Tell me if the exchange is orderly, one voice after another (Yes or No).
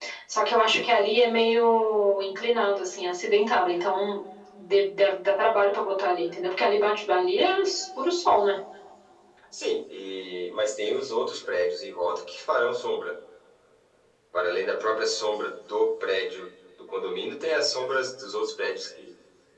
Yes